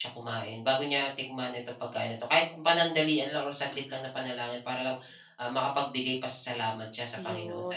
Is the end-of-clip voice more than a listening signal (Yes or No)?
Yes